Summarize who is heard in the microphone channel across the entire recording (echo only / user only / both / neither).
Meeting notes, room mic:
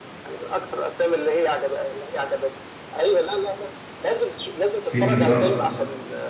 both